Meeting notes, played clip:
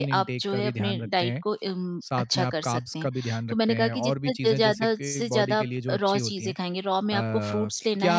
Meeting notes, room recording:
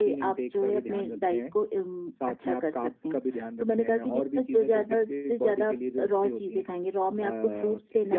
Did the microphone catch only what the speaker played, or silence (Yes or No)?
Yes